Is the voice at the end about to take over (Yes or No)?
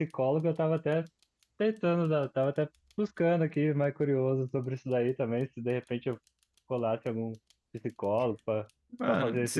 No